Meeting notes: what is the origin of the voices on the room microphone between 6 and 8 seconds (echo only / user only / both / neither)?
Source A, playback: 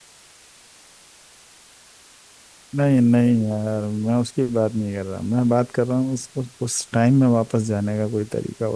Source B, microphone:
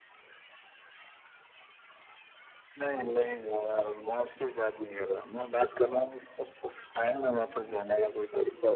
echo only